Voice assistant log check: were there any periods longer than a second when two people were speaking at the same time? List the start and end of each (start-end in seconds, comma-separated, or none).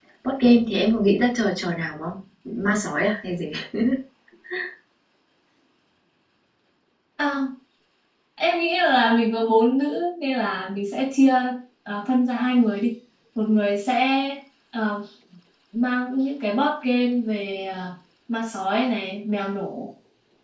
none